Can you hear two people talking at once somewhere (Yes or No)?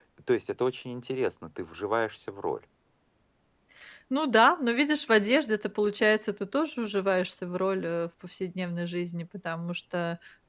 No